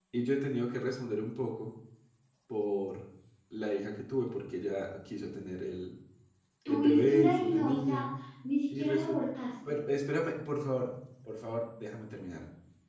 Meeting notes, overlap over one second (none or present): present